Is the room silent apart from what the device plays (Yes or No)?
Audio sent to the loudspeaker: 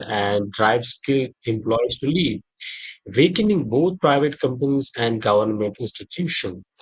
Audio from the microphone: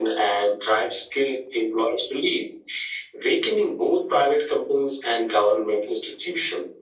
Yes